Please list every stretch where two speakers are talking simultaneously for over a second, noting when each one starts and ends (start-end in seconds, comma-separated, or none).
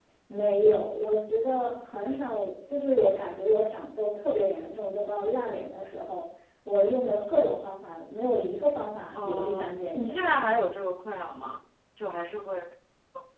9.2-10.6